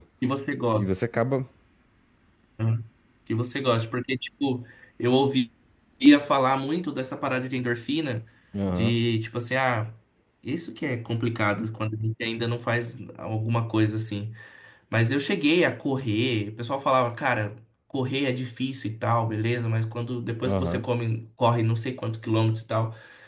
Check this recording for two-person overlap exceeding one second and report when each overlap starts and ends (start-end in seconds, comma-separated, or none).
none